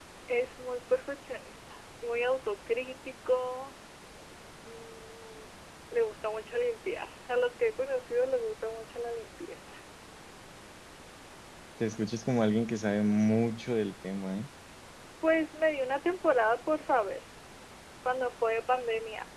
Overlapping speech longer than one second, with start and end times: none

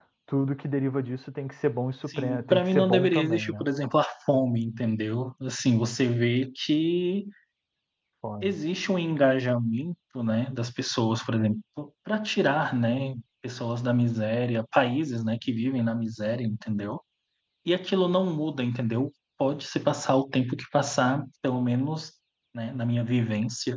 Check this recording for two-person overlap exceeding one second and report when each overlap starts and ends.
2.1-3.7

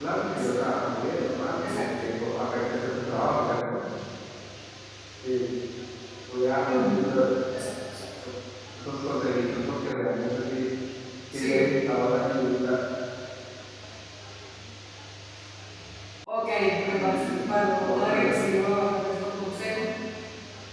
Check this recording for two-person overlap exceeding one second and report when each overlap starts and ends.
16.9-18.3

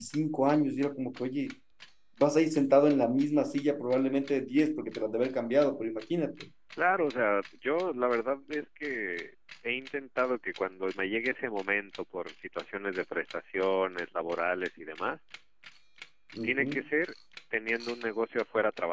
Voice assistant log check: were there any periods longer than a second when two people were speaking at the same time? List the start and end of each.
none

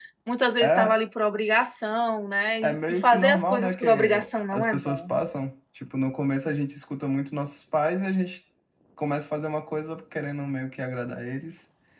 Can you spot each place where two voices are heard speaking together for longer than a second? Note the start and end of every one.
2.6-5.1

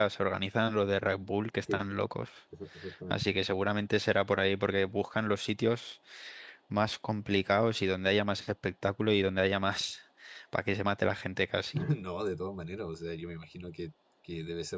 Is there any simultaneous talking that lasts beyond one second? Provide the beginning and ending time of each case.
none

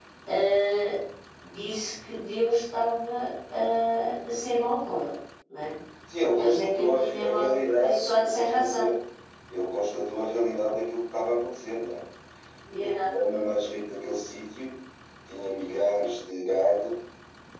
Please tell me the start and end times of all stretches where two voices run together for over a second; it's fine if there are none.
6.3-8.9

